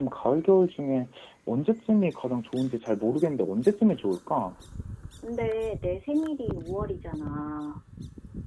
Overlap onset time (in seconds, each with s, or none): none